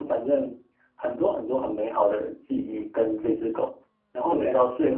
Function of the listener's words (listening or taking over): listening